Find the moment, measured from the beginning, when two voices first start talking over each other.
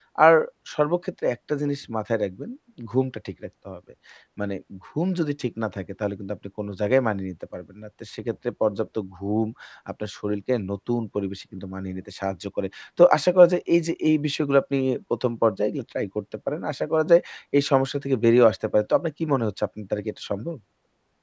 none

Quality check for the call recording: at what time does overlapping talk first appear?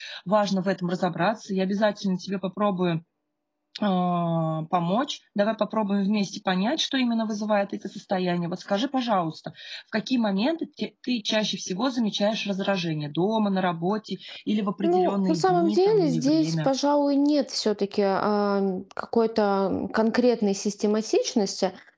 14.8 s

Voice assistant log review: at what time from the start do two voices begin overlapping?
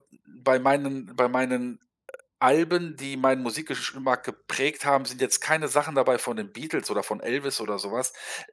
none

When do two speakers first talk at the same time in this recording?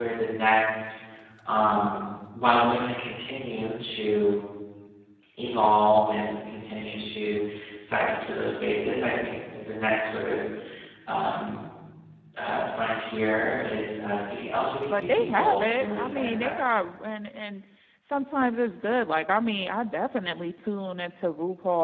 14.8 s

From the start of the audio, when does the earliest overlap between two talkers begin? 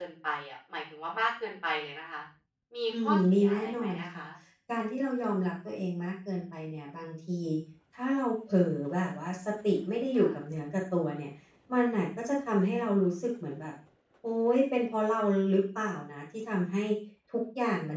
2.9 s

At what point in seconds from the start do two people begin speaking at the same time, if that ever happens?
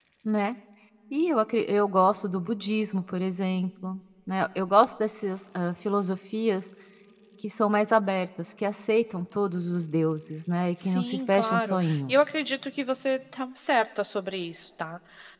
10.8 s

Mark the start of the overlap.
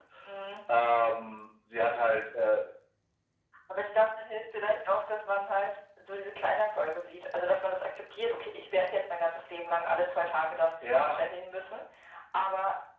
none

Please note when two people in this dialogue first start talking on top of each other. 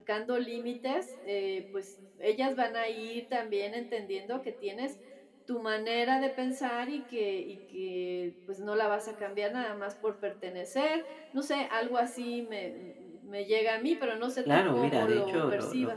14.4 s

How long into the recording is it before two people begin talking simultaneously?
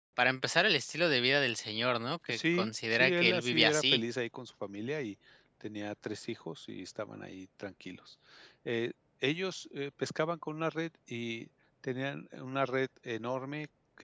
2.3 s

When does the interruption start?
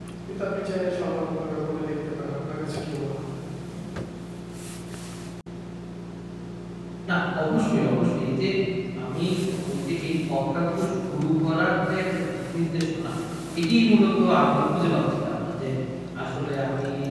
none

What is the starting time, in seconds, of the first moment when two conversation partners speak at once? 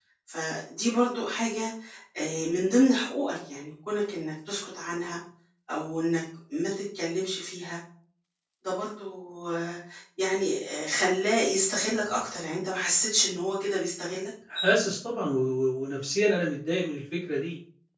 none

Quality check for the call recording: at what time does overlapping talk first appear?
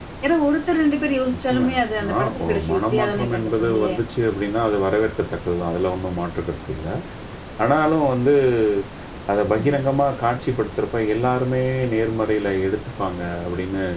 1.3 s

